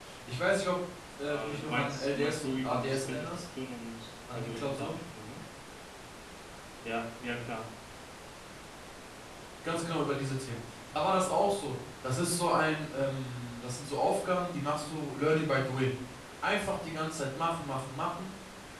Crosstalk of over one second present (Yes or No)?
Yes